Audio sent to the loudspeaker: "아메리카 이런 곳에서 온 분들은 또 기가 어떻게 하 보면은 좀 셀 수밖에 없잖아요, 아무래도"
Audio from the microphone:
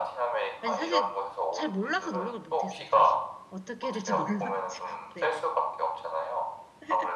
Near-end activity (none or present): present